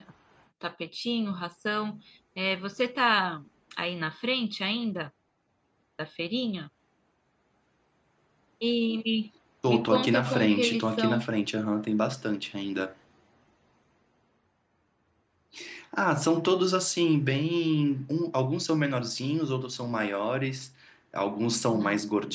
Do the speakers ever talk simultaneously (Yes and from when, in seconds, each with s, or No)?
Yes, from 9.7 s